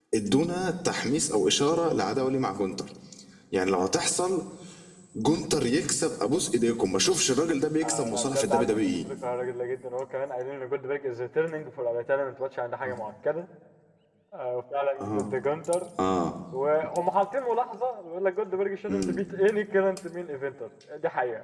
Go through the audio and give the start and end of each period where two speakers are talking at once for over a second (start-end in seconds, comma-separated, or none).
7.8-9.0